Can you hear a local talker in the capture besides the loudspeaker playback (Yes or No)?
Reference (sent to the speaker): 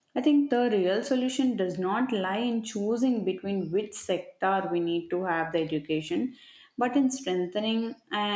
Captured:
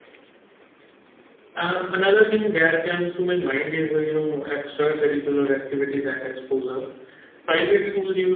Yes